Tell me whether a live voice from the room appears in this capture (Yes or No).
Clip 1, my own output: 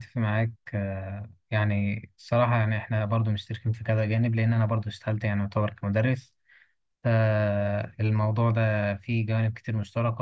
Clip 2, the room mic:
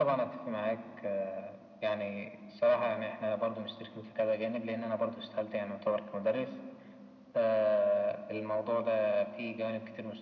No